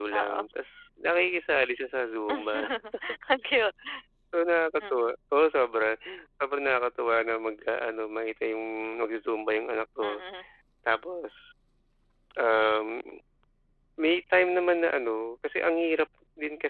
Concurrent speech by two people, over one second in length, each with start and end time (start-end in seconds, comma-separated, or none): none